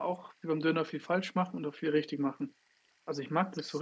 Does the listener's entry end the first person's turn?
No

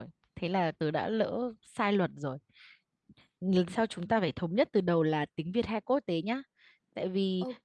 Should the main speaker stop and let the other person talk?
No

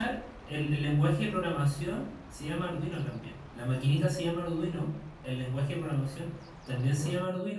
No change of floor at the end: Yes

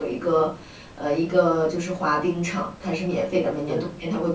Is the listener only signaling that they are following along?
Yes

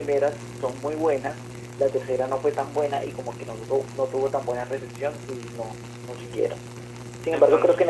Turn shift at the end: No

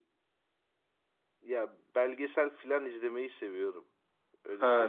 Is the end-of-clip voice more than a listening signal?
Yes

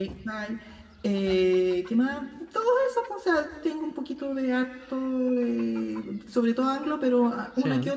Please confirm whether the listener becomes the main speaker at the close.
No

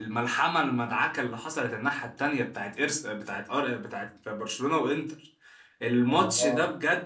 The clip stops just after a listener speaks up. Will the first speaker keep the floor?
Yes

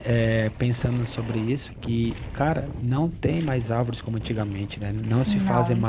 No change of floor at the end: Yes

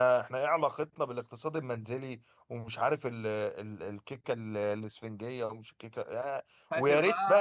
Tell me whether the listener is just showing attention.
Yes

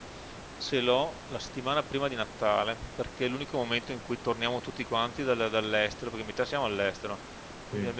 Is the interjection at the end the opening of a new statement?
No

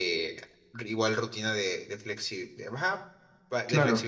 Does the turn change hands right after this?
No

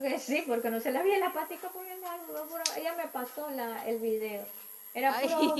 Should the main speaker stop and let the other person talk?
No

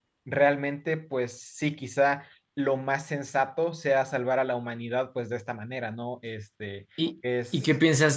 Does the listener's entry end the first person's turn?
Yes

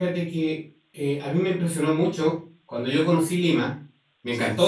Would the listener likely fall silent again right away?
Yes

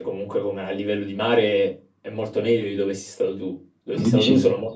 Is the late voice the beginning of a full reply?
No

